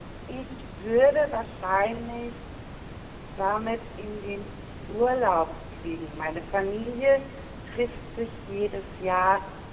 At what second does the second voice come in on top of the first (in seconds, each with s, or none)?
none